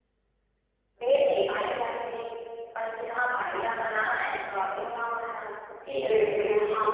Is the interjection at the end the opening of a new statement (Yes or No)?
Yes